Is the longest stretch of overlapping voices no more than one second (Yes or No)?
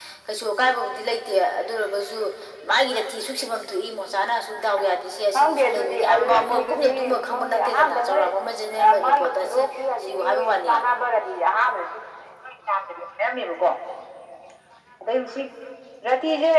No